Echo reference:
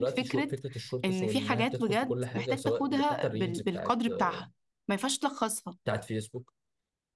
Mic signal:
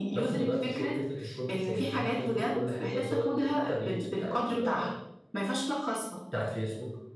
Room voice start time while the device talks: none

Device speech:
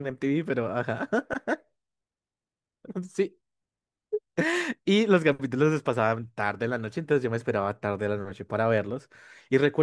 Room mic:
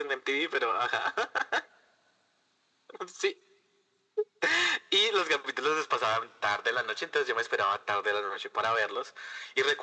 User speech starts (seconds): none

